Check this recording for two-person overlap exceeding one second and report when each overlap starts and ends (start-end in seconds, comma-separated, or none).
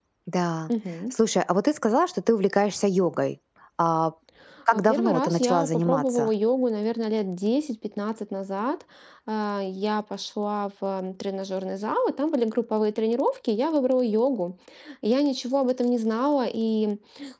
4.7-6.3